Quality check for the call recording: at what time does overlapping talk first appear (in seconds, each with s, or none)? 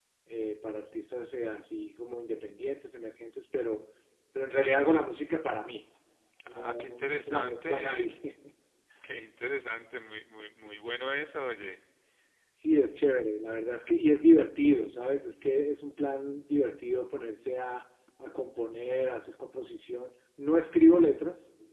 6.5 s